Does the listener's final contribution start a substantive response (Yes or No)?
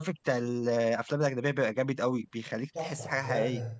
Yes